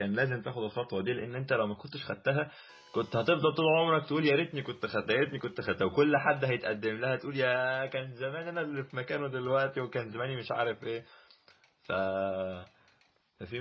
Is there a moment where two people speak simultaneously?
No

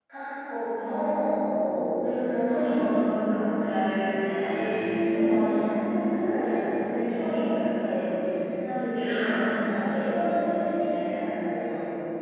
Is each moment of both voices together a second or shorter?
Yes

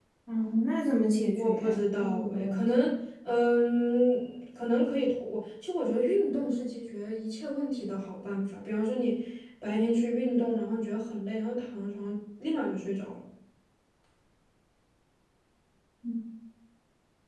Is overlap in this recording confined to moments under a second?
No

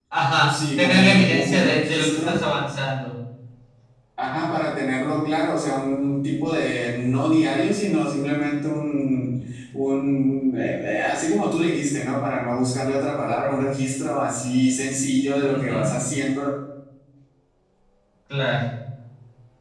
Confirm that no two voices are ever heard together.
No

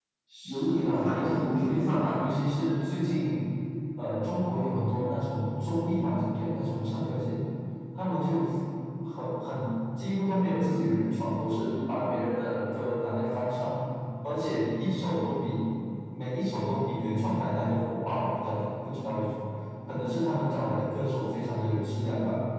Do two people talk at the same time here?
Yes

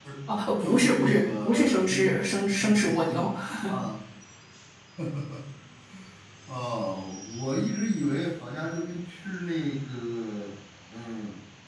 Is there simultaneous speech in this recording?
Yes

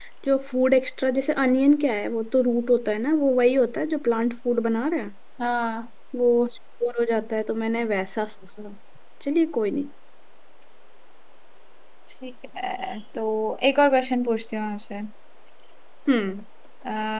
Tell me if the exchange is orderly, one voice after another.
Yes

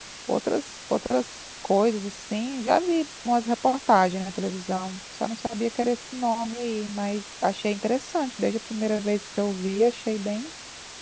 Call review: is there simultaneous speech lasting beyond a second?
No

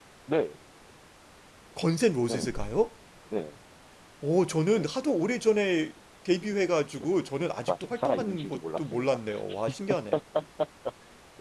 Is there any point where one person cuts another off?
Yes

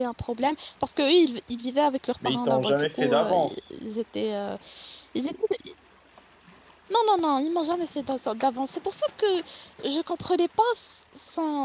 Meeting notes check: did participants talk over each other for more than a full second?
Yes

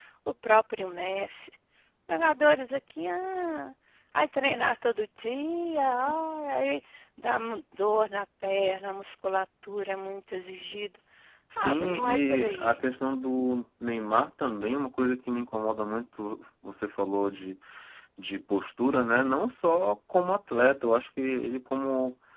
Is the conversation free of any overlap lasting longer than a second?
No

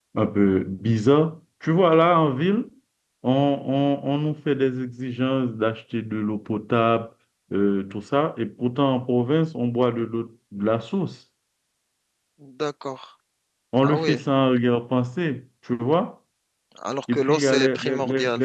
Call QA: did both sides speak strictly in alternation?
No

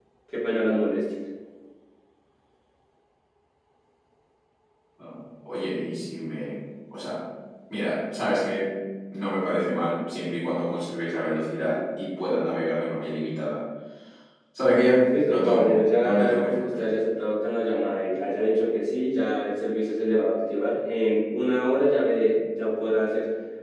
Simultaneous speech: Yes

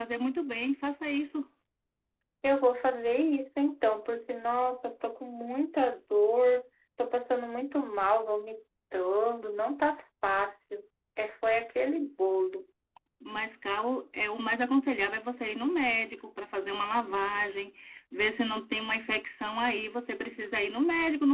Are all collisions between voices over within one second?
Yes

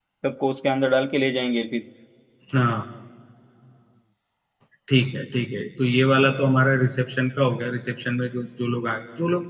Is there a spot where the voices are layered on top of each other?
No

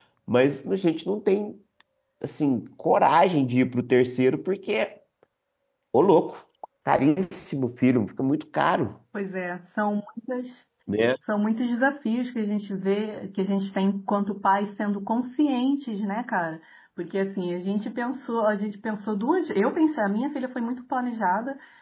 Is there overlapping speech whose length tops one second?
No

